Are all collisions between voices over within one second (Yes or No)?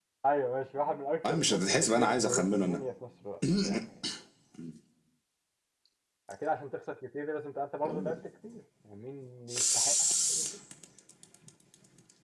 No